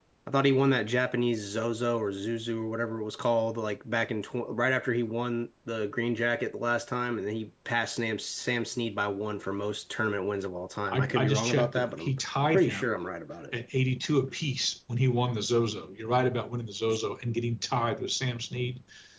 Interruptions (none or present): present